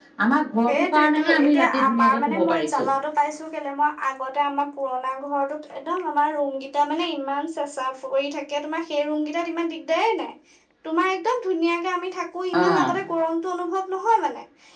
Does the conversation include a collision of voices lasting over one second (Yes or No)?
Yes